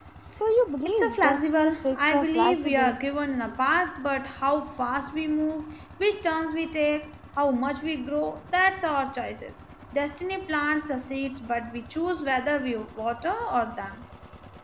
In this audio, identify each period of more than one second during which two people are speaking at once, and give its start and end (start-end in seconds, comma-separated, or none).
0.8-3.0